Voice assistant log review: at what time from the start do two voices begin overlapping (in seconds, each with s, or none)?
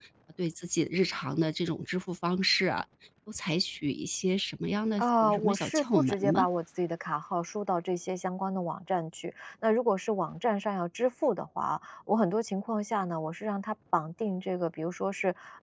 5.0 s